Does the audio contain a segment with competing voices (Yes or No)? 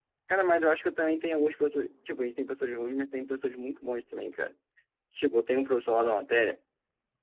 No